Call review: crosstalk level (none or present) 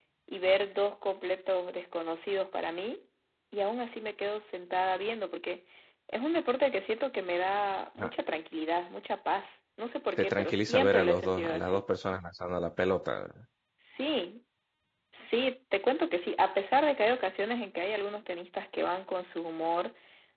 present